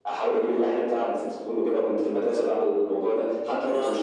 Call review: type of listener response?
listening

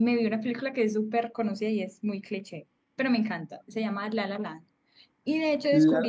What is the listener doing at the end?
listening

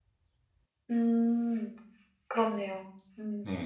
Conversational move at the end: taking over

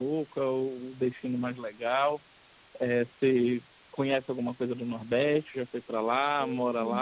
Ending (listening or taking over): taking over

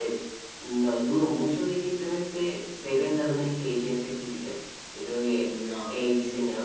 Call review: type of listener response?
listening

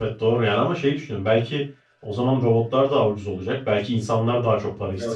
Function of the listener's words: taking over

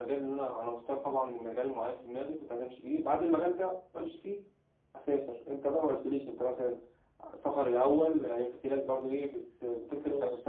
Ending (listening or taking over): listening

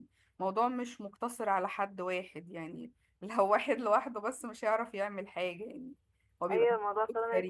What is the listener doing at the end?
taking over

